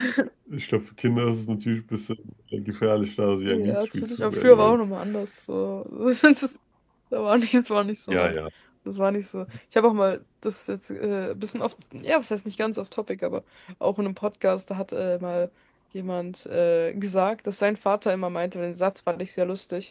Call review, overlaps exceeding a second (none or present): present